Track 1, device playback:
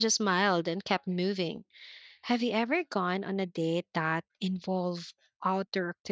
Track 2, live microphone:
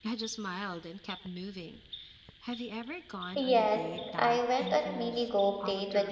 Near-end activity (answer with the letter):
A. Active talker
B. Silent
A